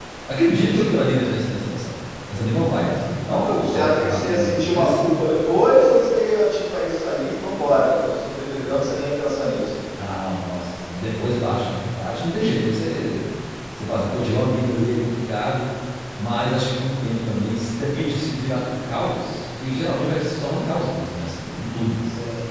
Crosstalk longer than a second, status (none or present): present